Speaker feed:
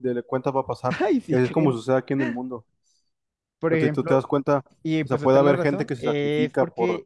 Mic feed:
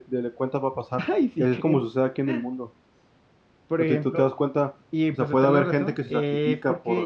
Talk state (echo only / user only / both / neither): echo only